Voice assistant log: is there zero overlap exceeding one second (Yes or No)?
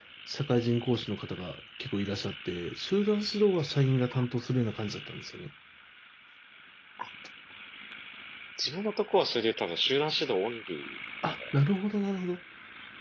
Yes